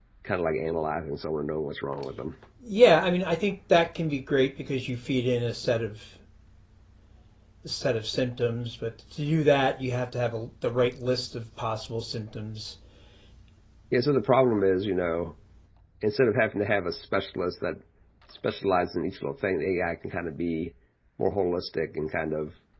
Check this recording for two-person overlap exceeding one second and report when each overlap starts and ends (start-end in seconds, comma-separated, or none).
none